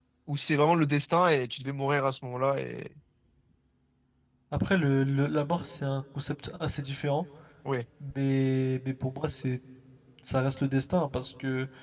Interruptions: none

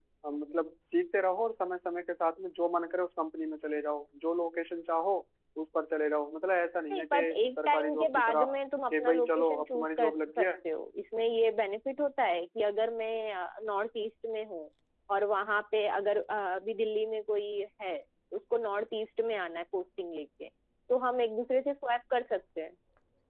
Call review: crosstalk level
present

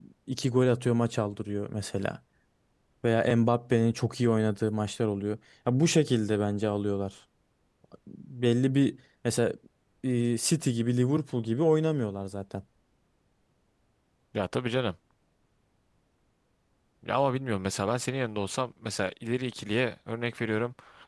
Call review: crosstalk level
none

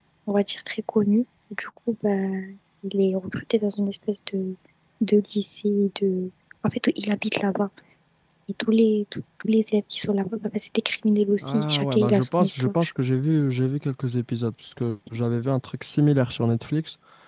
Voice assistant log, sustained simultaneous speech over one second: present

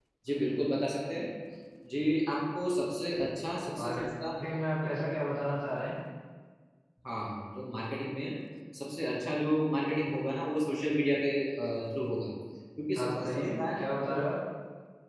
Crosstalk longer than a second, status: present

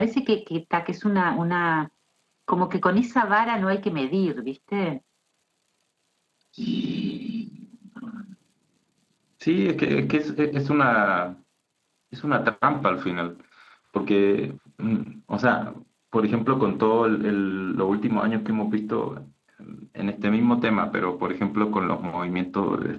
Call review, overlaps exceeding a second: none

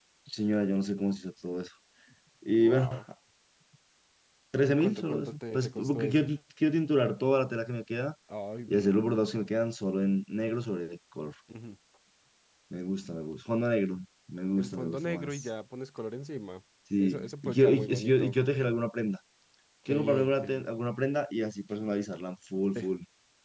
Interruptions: present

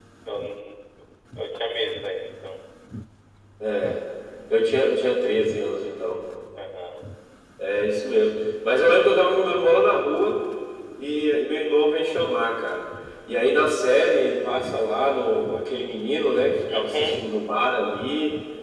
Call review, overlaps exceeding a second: none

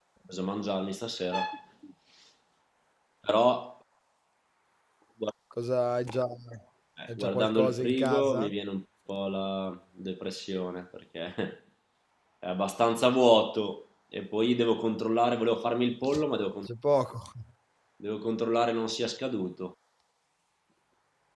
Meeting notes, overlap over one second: present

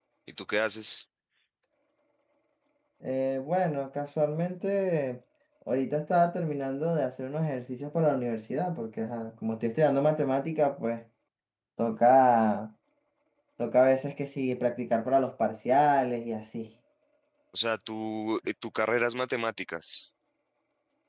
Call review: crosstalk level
none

